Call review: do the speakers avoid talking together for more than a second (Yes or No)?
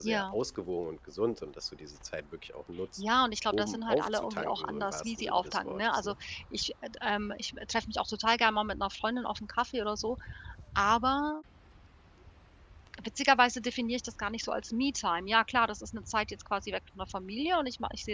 No